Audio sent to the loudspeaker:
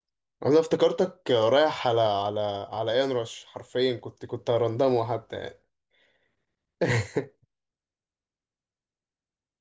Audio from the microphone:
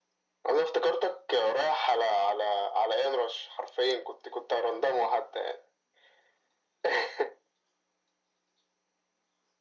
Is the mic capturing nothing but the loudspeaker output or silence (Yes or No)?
Yes